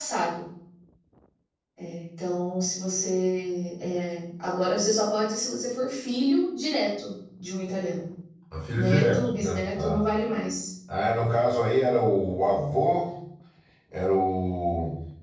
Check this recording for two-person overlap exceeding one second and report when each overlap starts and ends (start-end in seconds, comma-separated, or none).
8.7-10.1